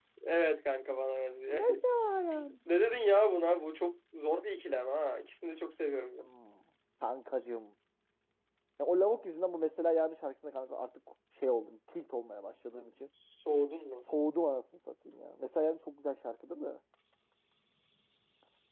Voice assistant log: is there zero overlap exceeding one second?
Yes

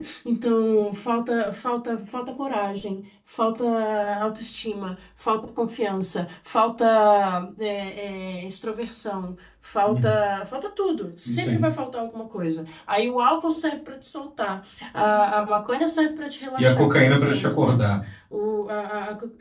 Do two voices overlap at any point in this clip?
Yes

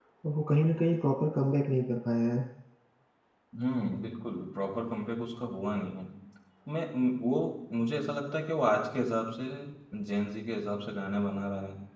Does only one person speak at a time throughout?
Yes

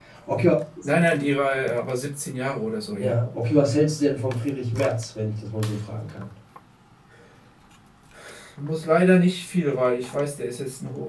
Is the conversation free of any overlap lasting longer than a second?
Yes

